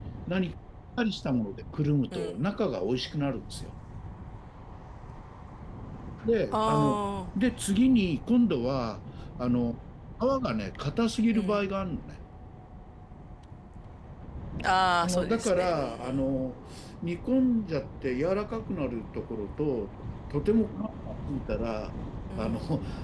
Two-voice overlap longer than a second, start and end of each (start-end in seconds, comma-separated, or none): 15.0-16.3